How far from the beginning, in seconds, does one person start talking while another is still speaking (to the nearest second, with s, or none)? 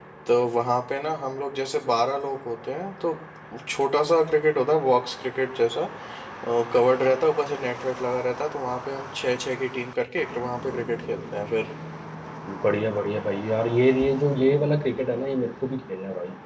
none